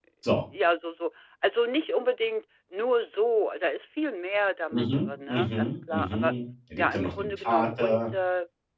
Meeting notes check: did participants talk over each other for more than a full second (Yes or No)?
Yes